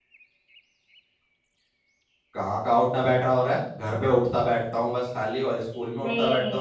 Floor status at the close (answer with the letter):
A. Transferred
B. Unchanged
A